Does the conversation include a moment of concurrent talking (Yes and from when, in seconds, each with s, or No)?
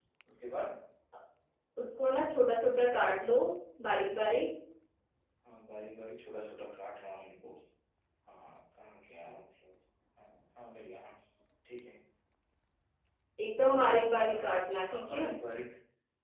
Yes, from 13.6 s